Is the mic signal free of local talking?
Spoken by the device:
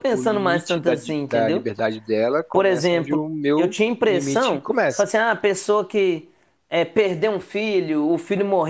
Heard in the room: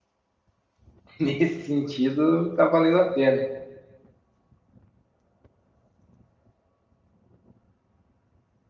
No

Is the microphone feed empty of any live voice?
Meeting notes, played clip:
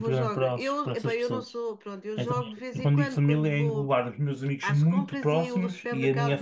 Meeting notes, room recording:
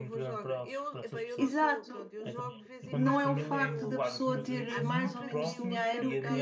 No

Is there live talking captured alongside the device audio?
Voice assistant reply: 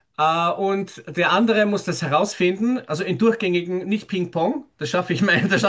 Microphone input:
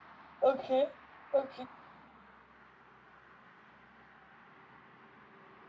Yes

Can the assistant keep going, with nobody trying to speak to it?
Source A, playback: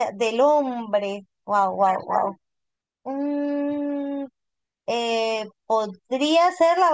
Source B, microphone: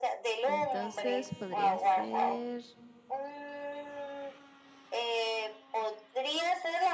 No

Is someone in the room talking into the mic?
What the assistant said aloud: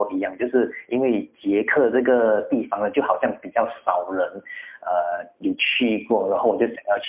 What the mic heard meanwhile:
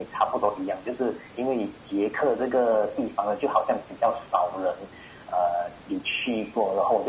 No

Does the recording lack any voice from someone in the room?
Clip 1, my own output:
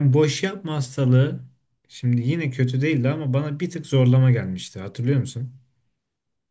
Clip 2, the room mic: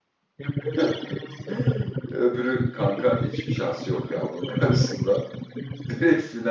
No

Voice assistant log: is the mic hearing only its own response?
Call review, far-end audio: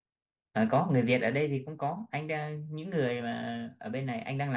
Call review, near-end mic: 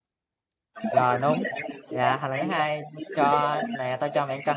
No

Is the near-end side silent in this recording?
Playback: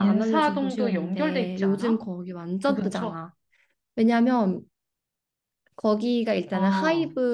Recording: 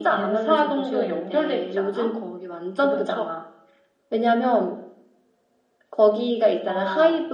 Yes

